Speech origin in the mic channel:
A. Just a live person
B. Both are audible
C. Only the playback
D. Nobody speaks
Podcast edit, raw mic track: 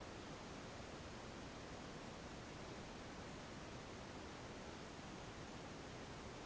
D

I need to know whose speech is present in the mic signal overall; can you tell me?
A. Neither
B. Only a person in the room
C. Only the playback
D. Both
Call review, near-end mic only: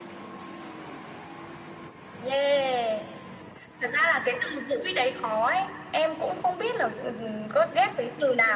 C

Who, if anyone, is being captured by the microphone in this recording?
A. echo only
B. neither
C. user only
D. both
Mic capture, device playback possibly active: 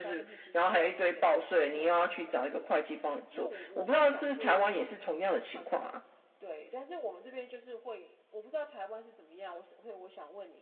D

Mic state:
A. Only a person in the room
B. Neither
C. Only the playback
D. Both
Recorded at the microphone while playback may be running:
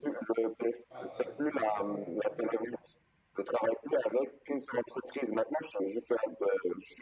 D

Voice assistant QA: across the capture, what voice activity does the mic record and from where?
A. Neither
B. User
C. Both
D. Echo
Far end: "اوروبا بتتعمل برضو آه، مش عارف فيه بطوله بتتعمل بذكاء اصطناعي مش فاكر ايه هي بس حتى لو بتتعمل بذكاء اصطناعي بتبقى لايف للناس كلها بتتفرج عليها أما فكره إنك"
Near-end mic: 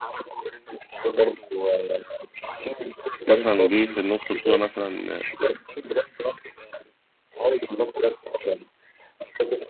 C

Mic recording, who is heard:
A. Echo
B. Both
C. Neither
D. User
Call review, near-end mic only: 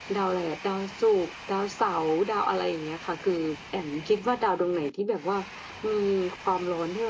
A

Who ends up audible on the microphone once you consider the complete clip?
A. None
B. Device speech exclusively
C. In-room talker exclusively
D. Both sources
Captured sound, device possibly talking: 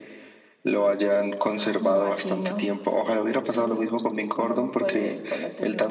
B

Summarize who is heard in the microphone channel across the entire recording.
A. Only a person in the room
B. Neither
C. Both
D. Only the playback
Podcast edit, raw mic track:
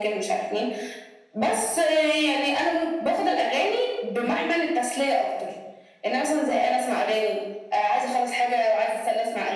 D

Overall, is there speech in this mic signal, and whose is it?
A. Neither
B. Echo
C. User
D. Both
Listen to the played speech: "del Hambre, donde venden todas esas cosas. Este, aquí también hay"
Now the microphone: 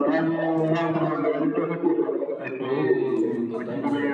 D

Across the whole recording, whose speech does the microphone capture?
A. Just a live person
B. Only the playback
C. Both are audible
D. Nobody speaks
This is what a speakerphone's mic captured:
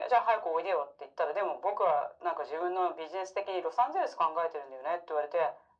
B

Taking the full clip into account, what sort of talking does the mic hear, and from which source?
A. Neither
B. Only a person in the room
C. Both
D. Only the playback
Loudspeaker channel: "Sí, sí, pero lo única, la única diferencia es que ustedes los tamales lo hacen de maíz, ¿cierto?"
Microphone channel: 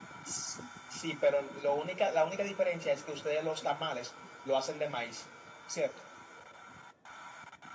D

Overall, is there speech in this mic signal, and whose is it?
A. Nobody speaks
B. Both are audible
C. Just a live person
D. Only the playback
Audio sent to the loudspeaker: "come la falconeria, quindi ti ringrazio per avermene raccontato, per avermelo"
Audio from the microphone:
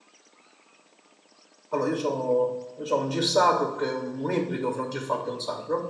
C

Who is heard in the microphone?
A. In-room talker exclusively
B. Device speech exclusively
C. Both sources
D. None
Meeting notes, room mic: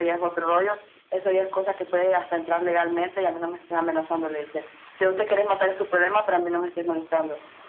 B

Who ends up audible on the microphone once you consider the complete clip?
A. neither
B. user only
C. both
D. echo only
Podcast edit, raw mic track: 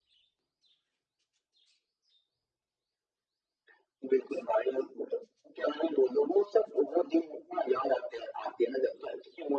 D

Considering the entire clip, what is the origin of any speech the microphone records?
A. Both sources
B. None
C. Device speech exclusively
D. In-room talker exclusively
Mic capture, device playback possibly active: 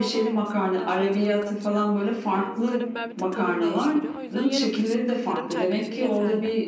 A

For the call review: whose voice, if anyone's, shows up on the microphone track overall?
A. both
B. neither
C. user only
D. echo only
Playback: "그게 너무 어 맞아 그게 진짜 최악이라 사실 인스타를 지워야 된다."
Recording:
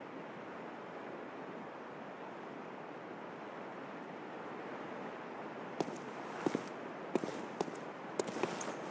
B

